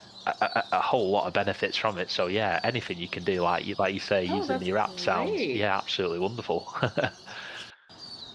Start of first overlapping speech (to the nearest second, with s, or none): 4 s